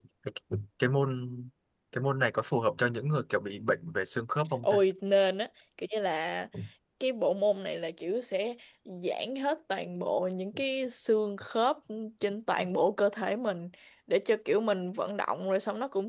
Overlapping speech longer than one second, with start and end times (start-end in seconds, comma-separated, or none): none